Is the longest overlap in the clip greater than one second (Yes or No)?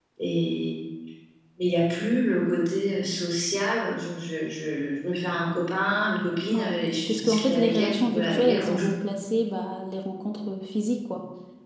Yes